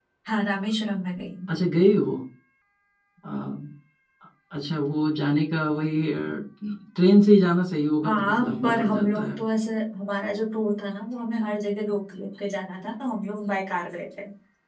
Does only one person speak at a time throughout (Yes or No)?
No